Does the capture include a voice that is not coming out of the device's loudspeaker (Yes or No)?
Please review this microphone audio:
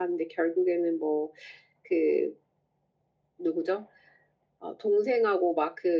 Yes